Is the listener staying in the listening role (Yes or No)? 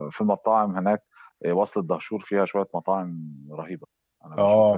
No